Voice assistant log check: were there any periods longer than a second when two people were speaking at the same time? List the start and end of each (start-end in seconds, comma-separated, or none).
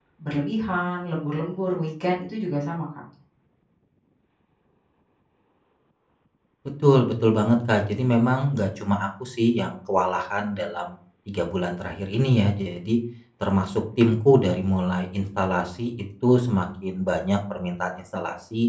none